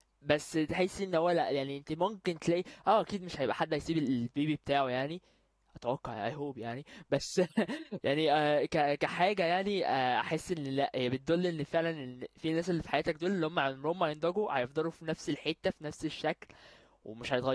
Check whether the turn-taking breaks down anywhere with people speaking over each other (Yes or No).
No